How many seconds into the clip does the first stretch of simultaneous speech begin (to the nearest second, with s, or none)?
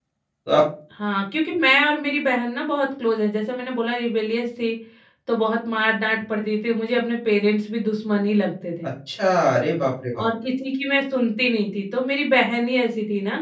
none